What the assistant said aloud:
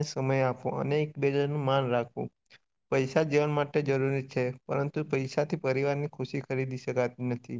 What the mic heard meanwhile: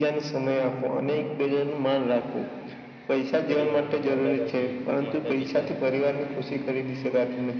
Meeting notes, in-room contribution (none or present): present